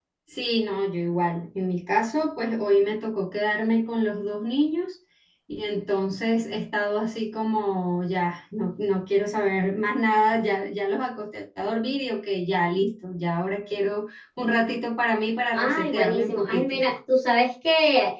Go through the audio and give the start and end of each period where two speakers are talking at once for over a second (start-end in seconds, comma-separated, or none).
15.5-16.8